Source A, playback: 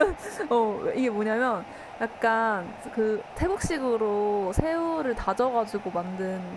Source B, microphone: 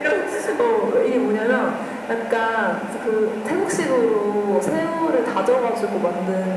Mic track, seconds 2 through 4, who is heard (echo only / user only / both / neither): echo only